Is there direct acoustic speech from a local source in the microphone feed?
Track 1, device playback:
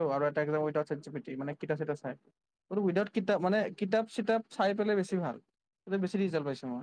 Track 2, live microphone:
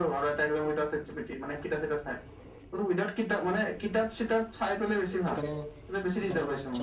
Yes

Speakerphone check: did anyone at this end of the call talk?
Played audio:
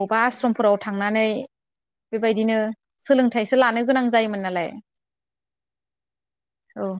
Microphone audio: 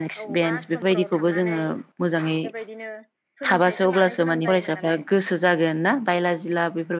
Yes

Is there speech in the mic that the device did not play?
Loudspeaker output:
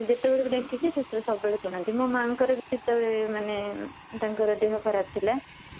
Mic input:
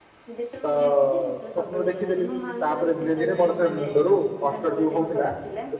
Yes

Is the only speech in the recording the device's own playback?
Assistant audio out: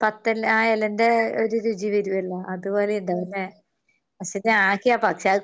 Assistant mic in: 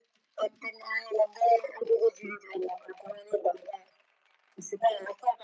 Yes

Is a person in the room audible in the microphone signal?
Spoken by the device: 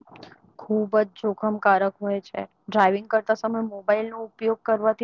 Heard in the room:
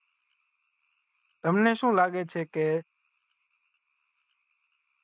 Yes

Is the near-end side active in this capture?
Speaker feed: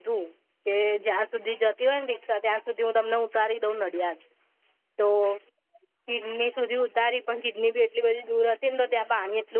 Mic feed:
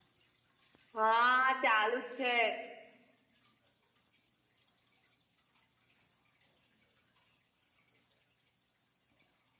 Yes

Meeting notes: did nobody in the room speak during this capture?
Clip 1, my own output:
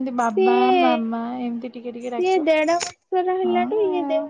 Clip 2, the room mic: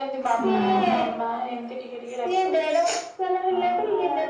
No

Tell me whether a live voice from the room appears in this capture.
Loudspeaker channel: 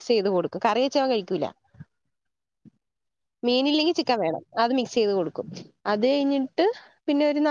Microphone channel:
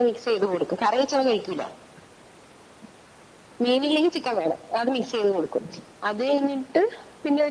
No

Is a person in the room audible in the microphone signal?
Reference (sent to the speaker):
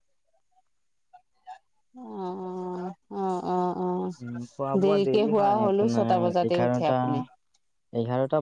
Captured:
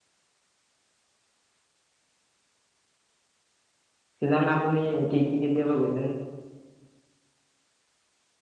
Yes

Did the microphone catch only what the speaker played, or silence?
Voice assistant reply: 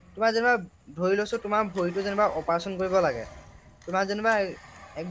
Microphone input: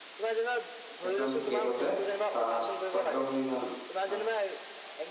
No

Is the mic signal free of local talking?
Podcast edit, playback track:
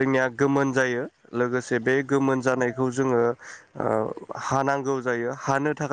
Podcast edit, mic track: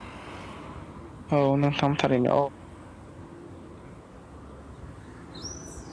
No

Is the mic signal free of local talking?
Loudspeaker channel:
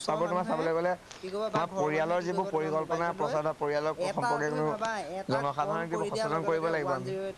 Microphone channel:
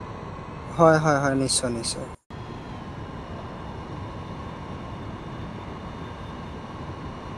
No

